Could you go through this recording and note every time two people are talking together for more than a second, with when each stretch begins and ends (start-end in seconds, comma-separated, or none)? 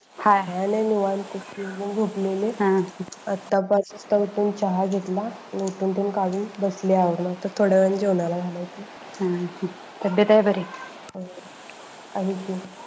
none